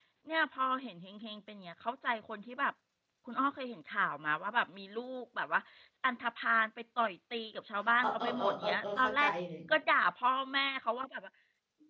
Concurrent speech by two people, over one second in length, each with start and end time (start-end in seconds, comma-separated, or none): 8.0-9.3